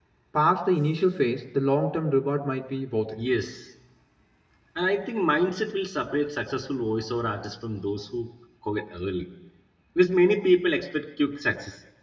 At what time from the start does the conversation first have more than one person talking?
none

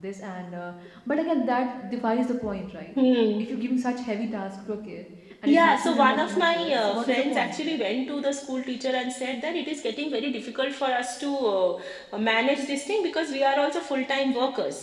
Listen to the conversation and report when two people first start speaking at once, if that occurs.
5.5 s

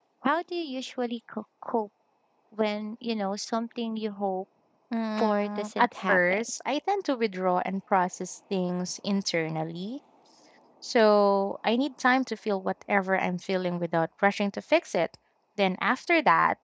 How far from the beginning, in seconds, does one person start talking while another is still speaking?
5.2 s

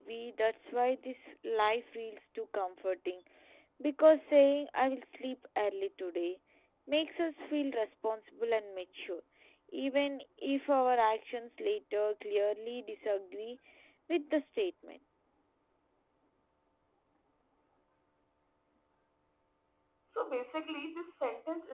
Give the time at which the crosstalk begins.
none

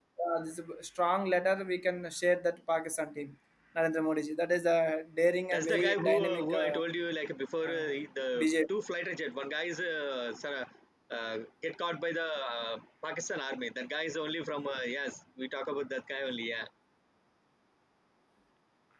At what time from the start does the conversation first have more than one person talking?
5.5 s

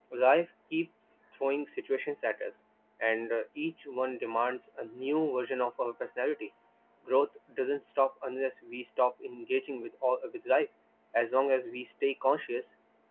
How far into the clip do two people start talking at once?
none

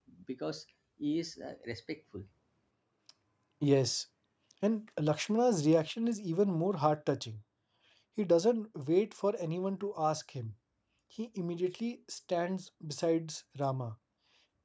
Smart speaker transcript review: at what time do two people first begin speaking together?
none

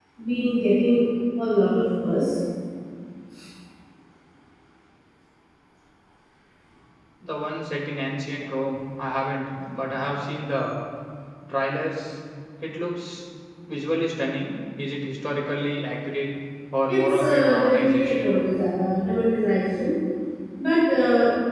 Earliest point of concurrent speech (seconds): 16.9 s

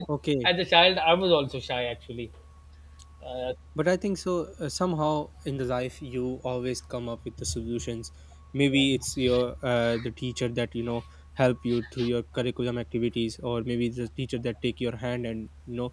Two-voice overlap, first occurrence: none

